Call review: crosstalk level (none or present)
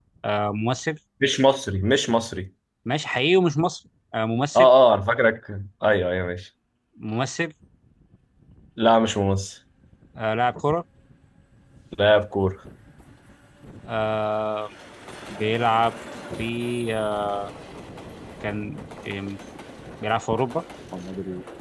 none